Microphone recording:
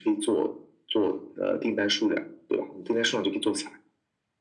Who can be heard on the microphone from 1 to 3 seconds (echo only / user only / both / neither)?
echo only